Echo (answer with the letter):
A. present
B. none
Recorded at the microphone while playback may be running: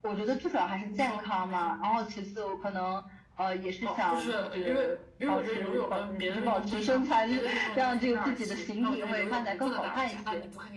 A